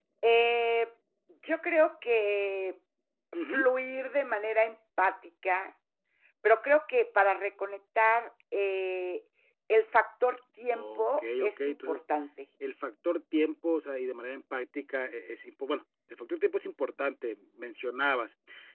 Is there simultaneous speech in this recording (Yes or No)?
Yes